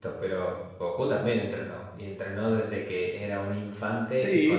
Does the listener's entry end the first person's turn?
Yes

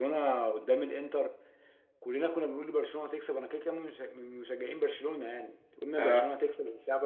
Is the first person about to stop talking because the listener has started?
No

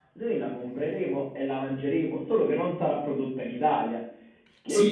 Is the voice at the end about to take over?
Yes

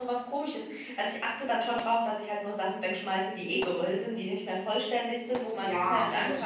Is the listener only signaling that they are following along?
No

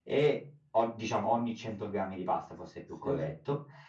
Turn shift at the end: No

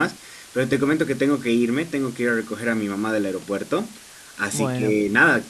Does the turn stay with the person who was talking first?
Yes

